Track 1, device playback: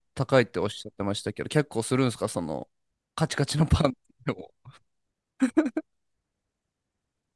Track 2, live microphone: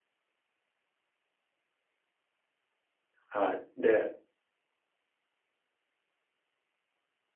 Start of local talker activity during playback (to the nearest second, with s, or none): 3 s